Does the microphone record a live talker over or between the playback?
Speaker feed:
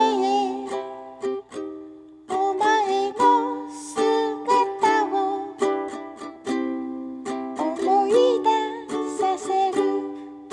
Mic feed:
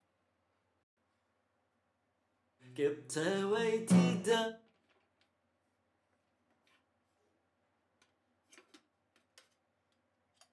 Yes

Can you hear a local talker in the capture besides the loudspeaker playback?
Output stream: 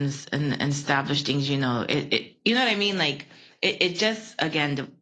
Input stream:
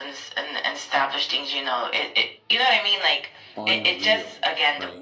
Yes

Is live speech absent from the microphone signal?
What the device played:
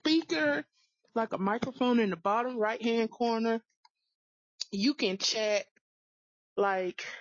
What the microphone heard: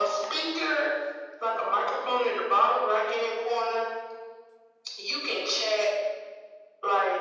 Yes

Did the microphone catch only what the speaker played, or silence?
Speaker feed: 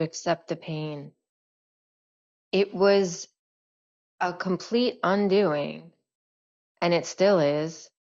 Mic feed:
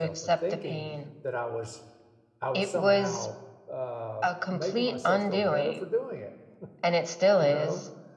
No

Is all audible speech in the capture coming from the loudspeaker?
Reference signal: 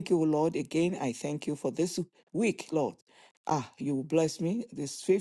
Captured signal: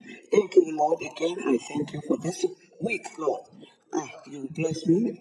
Yes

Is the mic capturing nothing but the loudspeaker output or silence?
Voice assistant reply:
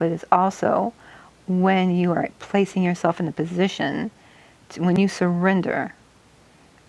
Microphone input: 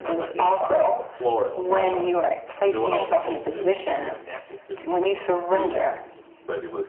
No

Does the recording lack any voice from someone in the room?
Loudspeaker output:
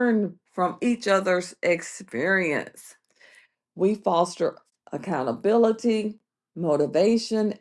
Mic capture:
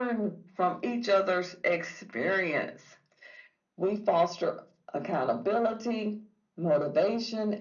Yes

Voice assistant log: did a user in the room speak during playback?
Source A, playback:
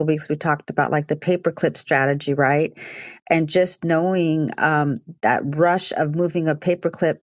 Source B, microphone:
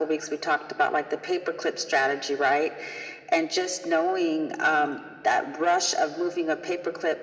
No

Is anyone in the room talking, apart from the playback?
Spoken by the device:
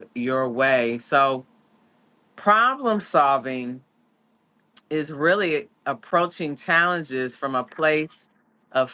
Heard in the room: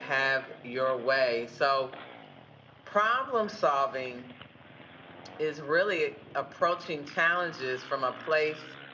No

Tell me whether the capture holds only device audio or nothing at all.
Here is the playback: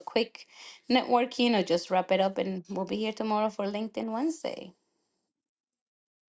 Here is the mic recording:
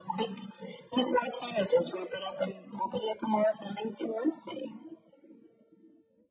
Yes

